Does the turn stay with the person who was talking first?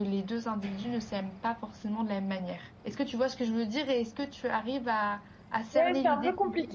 No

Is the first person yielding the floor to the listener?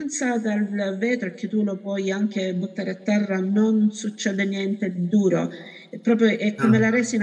No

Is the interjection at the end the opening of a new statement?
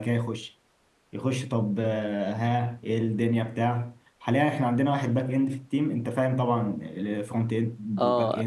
Yes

